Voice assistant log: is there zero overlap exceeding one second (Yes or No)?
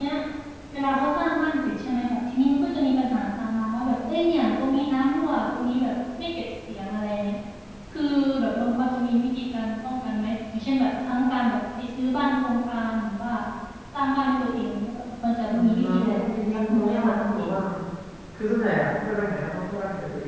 No